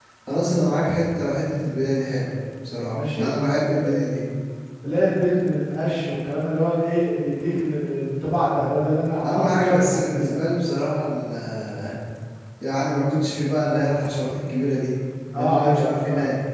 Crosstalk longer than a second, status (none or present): present